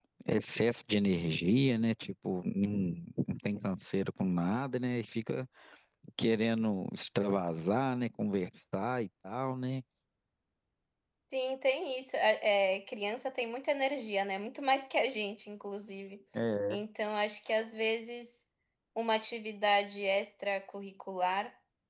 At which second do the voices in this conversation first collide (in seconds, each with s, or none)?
none